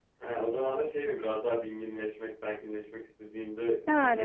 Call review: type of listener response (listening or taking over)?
taking over